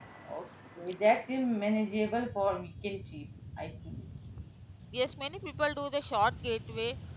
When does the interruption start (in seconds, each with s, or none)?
none